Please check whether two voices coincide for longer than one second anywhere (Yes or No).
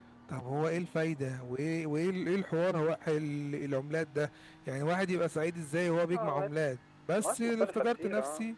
Yes